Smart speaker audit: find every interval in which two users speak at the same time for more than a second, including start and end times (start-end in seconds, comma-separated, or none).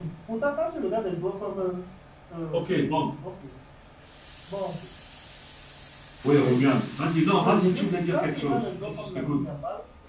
7.4-9.4